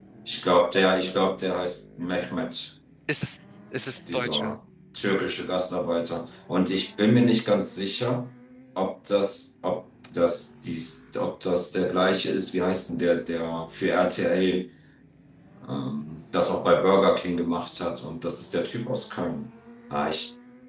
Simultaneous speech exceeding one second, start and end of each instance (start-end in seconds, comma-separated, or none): none